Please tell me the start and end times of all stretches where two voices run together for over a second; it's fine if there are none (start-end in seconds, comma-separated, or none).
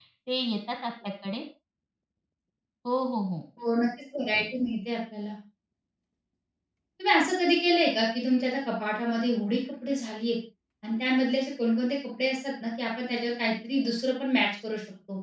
none